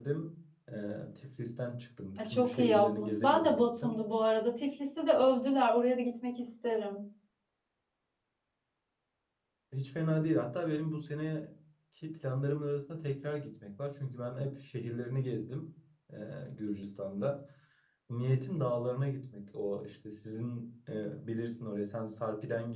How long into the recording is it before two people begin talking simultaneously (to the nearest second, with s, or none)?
2 s